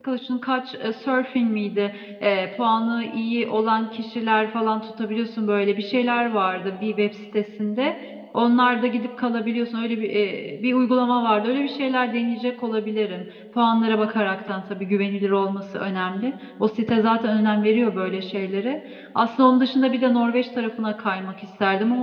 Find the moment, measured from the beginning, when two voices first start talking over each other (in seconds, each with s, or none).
none